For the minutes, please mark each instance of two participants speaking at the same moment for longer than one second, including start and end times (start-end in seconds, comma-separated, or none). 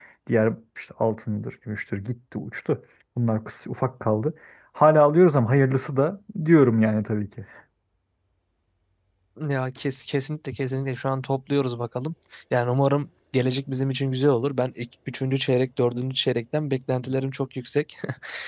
none